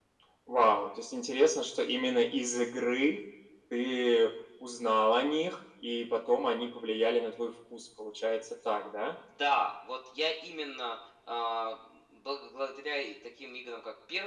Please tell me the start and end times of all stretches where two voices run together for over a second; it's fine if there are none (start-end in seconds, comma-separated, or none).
none